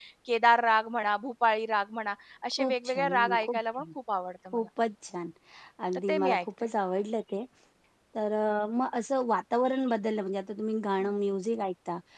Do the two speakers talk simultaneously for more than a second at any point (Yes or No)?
Yes